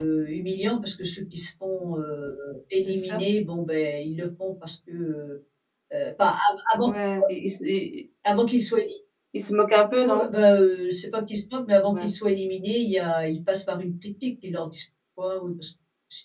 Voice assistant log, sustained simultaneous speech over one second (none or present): none